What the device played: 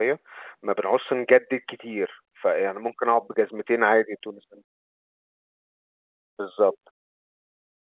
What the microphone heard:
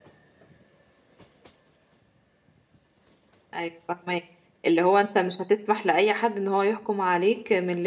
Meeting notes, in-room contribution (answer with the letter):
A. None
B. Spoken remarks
B